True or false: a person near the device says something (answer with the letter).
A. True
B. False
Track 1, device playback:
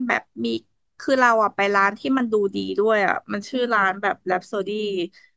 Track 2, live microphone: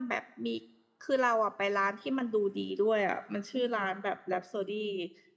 B